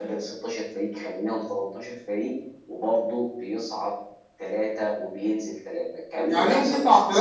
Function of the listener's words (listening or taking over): taking over